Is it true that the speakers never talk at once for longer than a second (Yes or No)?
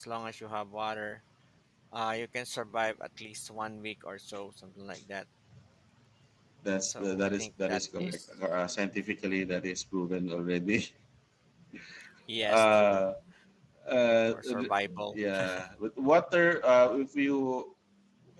No